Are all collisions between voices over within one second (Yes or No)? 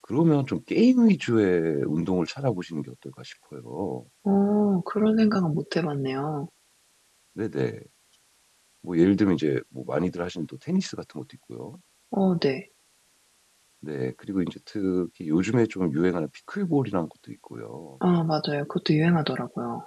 Yes